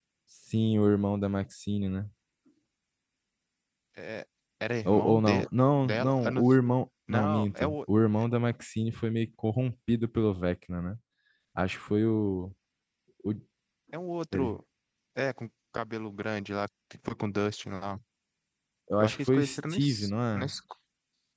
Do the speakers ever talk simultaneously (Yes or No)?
Yes